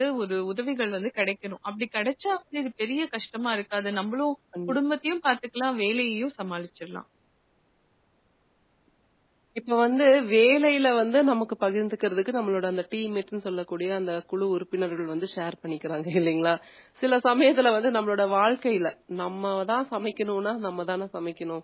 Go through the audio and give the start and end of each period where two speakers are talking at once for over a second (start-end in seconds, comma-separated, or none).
none